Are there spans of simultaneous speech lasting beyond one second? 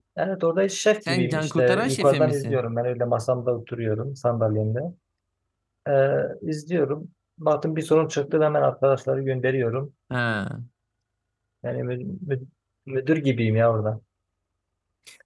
Yes, from 1.1 s

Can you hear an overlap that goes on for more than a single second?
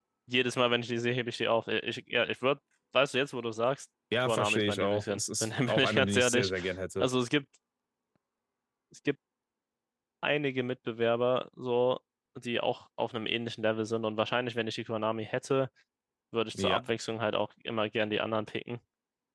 Yes, from 4.2 s

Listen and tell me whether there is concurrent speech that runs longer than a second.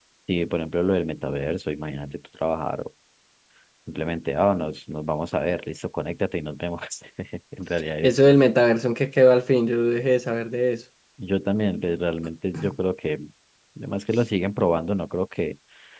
No

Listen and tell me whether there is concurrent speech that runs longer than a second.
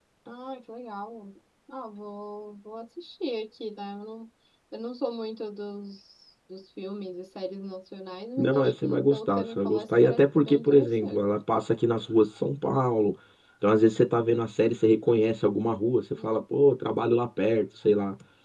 Yes, from 8.4 s

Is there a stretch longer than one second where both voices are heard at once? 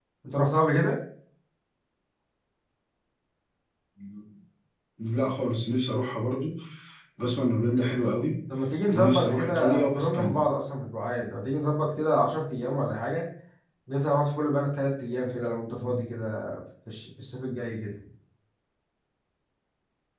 Yes, from 8.9 s

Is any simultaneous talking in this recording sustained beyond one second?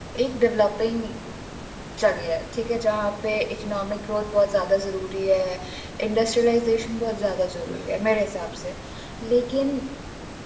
No

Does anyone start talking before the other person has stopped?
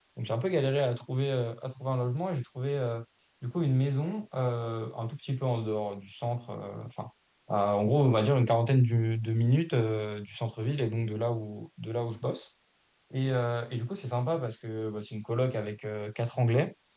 No

